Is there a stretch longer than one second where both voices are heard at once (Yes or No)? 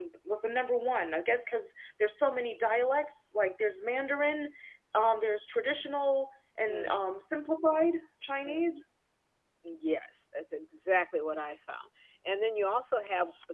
No